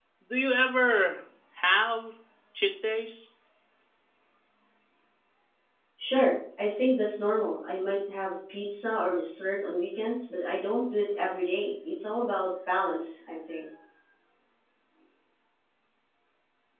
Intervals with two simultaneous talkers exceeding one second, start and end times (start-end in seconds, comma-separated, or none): none